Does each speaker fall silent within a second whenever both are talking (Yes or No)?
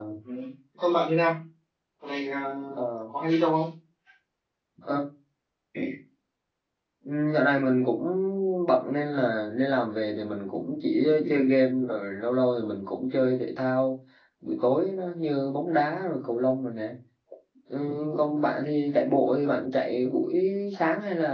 Yes